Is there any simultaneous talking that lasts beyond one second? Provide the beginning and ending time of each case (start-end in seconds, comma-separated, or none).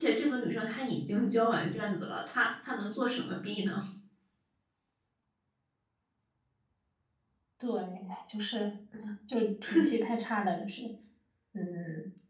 none